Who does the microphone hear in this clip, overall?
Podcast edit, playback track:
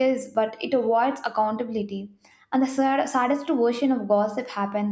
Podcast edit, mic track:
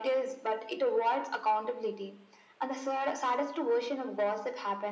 echo only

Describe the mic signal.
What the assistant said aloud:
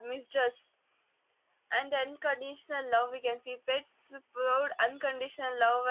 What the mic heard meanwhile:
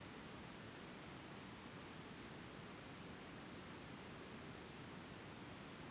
neither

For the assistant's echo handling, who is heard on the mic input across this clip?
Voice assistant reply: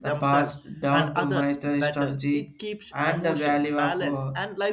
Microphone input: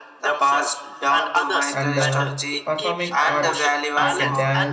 both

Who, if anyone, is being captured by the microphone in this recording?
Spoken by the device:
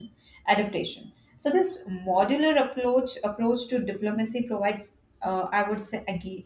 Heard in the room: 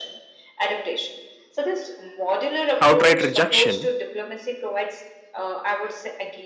both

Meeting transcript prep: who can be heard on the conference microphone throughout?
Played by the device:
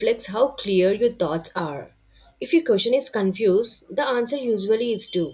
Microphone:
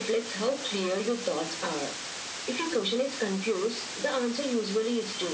echo only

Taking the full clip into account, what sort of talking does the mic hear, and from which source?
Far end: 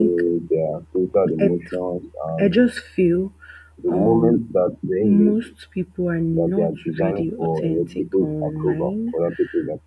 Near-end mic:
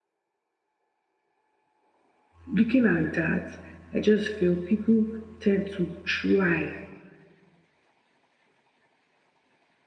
user only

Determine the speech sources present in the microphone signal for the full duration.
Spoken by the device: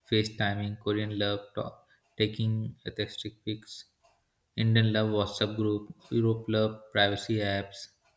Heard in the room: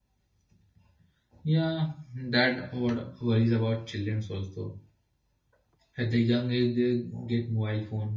user only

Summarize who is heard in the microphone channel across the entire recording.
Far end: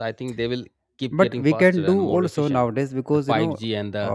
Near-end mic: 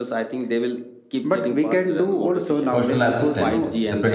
both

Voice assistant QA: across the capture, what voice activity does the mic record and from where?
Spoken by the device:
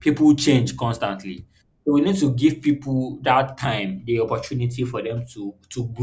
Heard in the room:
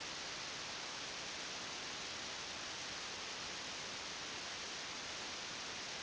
neither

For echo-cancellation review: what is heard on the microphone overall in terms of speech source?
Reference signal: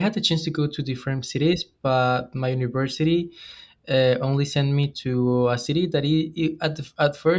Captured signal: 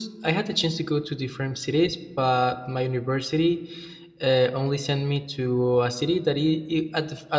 echo only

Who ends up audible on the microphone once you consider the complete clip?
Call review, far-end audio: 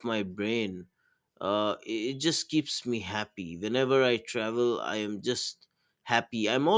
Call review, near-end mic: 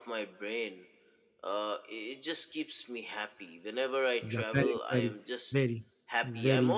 both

